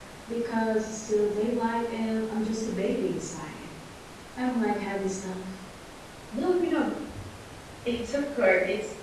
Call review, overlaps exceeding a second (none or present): none